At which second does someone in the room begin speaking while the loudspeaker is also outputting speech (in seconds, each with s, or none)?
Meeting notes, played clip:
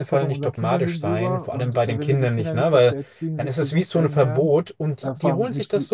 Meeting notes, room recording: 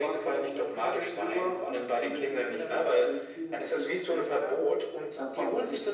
none